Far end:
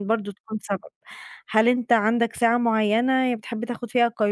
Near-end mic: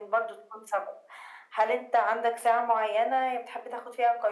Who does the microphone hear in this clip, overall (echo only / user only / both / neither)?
echo only